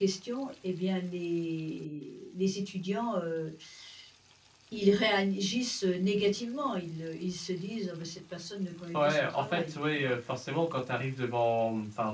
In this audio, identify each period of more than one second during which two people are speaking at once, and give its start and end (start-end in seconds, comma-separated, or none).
8.9-10.2